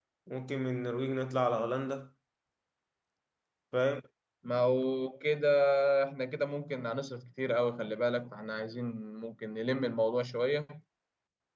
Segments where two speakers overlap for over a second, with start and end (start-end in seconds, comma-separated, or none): none